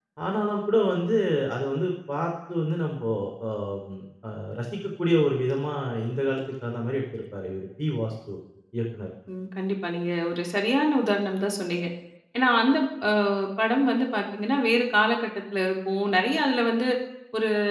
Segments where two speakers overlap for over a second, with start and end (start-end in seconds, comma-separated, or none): none